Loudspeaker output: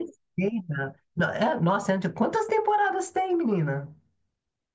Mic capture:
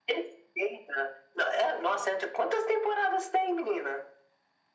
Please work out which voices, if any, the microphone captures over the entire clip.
echo only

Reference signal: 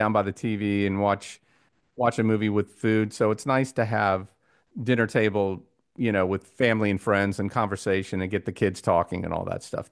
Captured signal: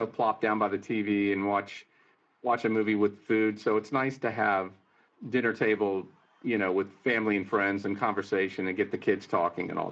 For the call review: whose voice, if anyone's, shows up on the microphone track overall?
echo only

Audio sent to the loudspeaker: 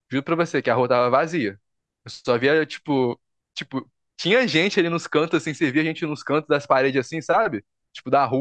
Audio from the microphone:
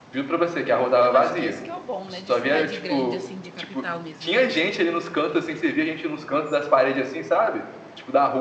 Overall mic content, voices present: both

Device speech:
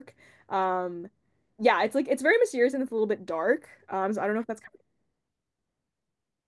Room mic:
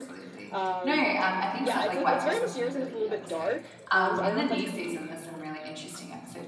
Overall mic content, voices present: both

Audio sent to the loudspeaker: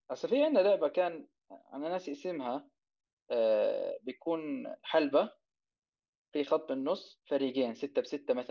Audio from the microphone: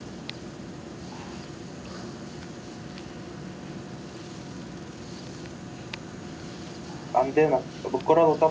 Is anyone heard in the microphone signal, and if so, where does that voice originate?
user only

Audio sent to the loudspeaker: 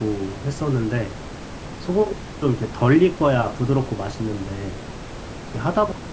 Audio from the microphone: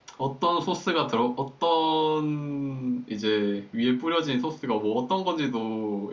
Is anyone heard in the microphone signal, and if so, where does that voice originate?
user only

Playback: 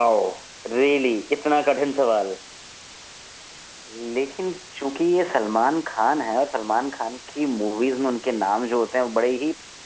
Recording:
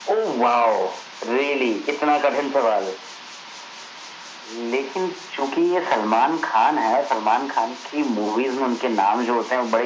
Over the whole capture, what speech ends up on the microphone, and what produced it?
echo only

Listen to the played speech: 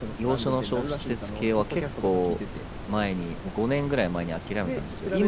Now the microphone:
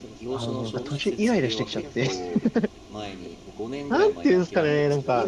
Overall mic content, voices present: both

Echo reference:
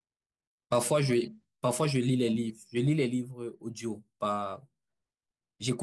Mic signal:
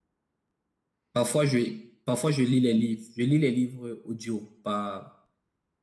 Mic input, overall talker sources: echo only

